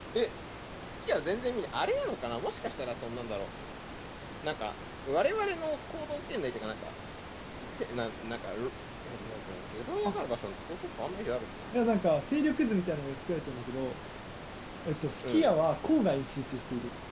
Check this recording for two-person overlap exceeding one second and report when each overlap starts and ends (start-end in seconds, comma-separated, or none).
none